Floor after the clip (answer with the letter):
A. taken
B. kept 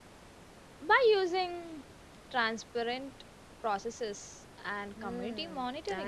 A